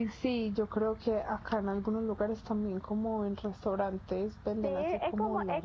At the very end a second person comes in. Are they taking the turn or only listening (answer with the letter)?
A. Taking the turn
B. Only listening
A